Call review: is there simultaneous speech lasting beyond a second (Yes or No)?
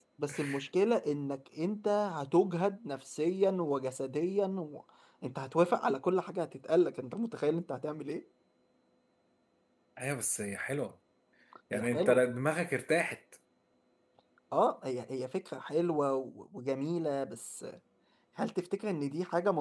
No